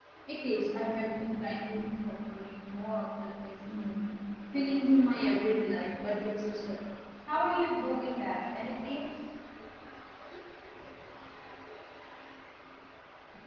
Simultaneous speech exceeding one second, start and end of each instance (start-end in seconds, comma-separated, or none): none